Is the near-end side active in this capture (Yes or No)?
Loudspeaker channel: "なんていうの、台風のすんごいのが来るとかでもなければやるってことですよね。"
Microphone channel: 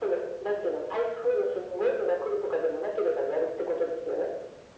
No